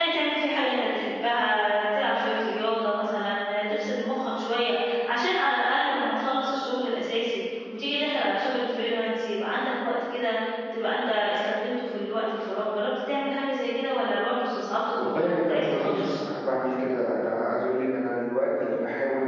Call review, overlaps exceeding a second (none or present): present